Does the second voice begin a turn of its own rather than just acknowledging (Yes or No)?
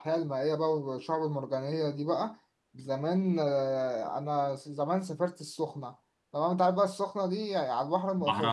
No